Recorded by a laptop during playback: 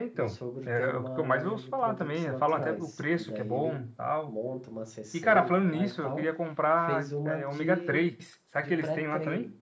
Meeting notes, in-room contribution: present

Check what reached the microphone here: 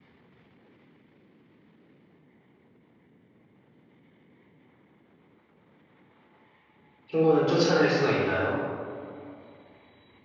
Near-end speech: present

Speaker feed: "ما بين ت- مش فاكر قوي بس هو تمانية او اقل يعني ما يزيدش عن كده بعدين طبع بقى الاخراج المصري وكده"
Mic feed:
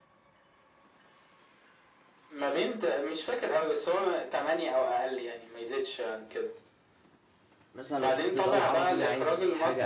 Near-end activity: present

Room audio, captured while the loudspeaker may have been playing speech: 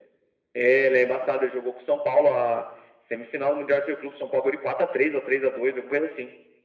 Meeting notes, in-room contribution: none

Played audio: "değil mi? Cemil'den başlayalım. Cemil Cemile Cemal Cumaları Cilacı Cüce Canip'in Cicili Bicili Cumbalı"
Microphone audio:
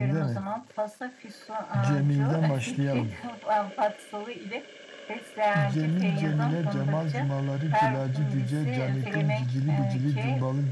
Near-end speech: present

